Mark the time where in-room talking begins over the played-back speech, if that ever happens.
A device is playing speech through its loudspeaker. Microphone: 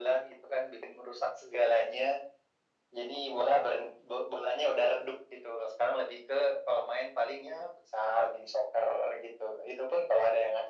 none

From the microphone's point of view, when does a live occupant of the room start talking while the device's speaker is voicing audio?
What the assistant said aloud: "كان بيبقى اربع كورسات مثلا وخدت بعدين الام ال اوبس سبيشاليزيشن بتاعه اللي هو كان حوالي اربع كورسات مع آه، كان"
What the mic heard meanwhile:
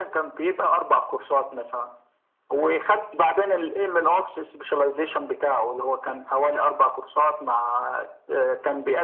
none

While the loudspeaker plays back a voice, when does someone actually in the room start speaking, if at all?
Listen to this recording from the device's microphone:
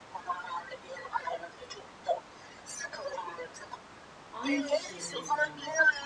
4.3 s

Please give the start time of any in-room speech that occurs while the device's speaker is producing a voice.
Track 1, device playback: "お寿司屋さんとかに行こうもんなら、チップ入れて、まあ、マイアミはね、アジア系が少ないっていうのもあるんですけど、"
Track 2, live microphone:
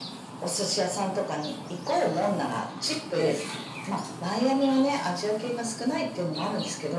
3.1 s

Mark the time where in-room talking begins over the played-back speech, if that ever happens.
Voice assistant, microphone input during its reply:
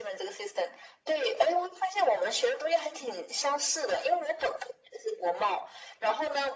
none

